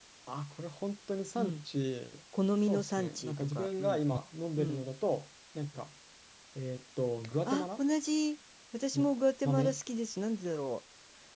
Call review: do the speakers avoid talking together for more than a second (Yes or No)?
No